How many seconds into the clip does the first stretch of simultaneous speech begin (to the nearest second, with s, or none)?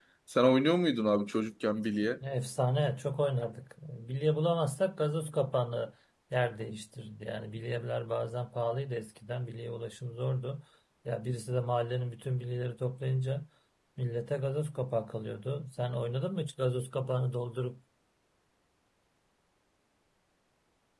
none